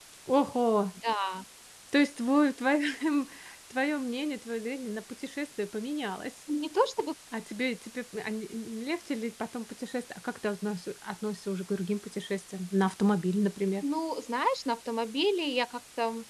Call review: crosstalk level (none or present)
none